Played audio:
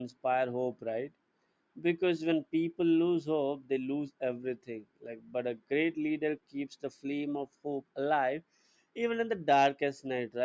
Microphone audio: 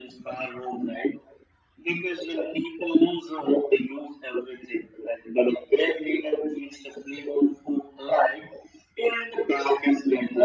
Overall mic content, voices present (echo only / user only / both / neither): echo only